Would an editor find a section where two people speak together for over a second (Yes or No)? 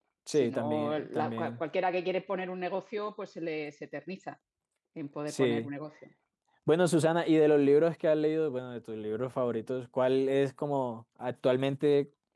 Yes